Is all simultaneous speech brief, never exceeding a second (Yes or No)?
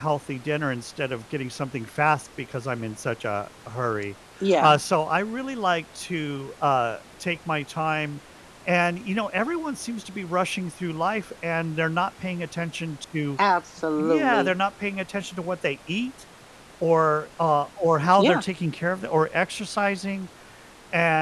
Yes